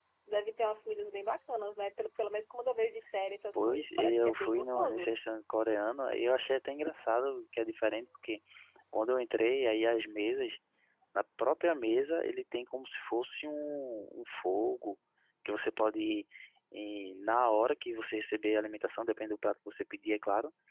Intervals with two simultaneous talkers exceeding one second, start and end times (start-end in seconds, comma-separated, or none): 3.5-5.1